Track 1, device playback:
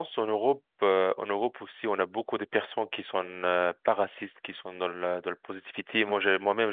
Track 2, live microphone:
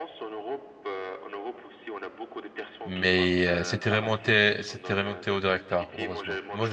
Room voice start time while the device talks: 3 s

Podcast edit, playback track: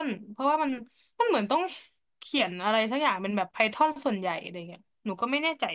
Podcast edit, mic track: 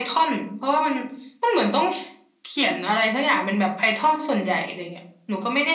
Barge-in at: none

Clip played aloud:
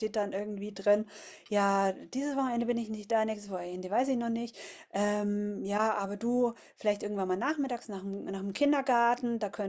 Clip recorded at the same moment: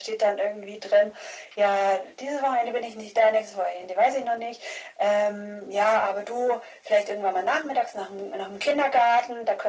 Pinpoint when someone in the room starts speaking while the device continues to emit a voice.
none

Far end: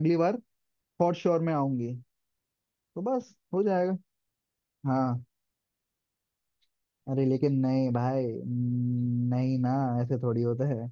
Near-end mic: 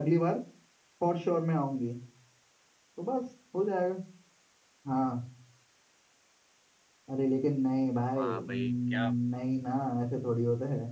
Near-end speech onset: 8 s

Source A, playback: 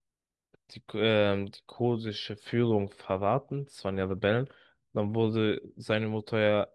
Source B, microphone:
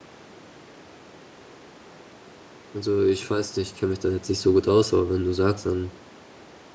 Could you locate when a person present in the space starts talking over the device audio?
3 s

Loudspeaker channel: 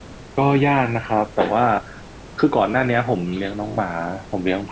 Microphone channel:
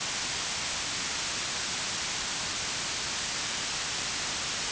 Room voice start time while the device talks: none

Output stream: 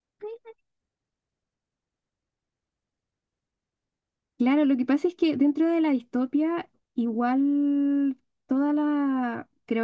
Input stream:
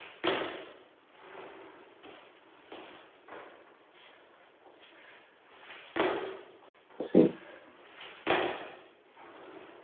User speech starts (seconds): 7 s

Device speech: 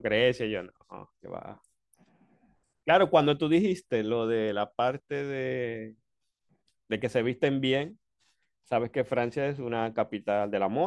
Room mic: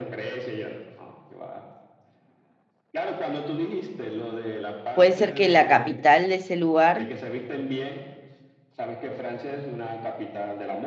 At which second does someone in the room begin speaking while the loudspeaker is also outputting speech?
5 s

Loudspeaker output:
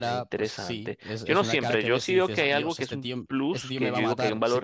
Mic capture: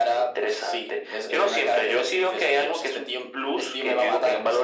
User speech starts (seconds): none

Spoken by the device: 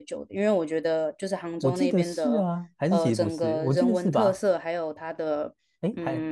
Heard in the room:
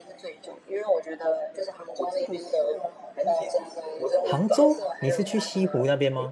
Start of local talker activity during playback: 4 s

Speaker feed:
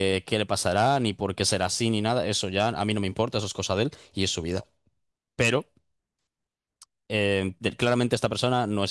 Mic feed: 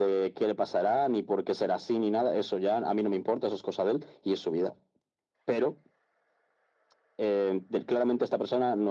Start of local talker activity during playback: none

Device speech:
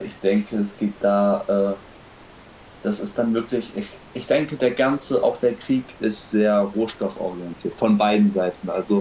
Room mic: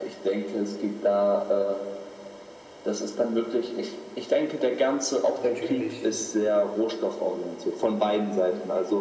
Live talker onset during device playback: 5 s

